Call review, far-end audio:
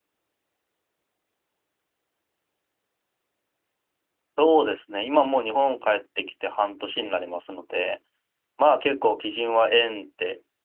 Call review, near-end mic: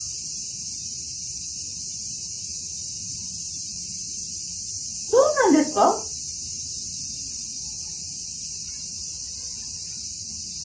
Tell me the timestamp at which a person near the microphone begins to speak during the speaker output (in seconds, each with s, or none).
5.0 s